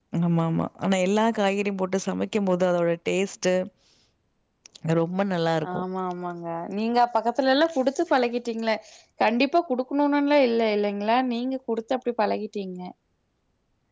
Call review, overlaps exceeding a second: none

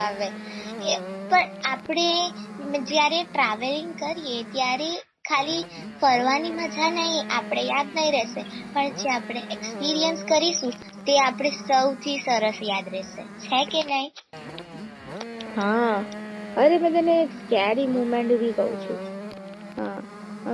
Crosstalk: none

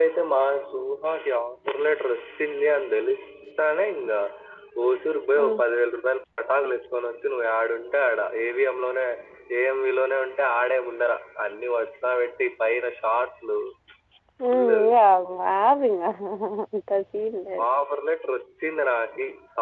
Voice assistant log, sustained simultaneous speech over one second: none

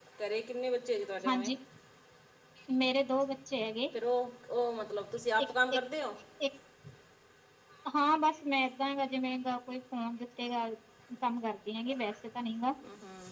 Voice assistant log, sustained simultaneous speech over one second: none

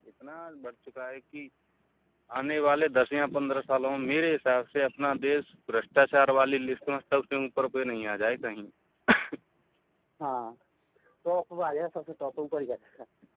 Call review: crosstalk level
none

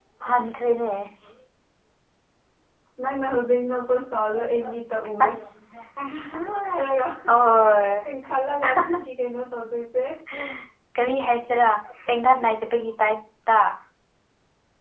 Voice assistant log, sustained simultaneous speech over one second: none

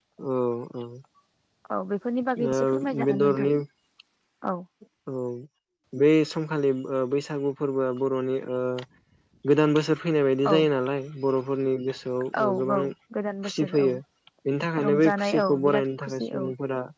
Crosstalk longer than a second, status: present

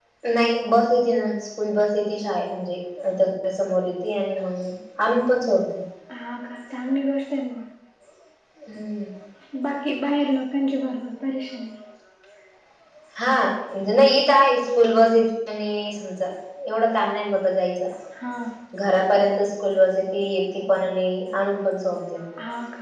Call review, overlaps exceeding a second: none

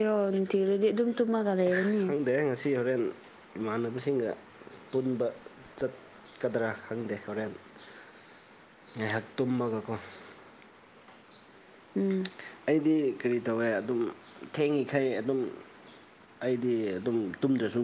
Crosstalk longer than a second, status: none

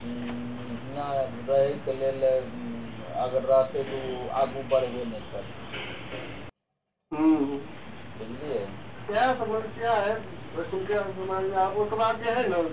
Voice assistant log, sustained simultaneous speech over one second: none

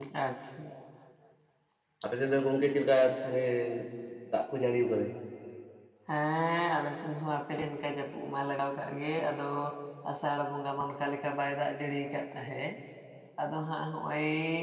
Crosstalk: none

